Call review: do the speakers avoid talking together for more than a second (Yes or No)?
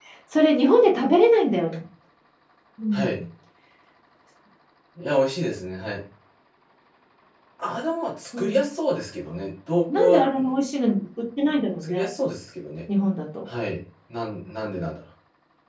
Yes